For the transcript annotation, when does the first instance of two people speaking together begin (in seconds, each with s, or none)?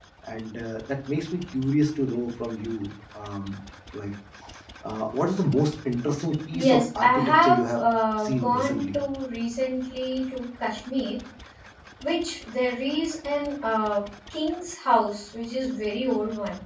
6.5 s